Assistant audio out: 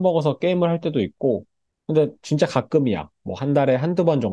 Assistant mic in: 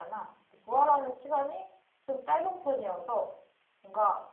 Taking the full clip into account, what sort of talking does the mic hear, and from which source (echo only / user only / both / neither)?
user only